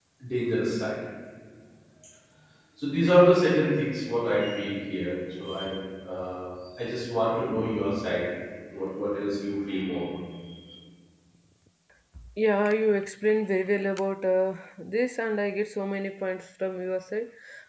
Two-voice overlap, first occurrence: none

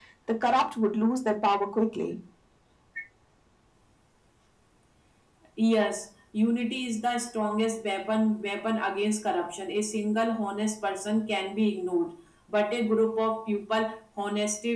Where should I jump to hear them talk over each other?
none

